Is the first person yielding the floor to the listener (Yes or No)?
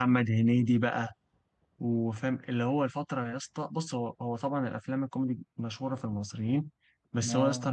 No